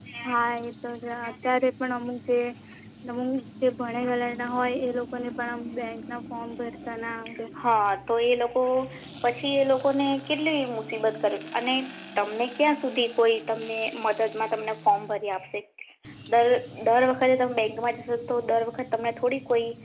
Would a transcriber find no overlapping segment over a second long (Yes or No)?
Yes